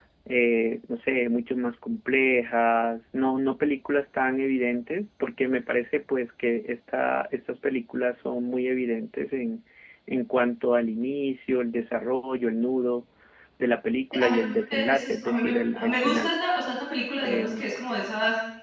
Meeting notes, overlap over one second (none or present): present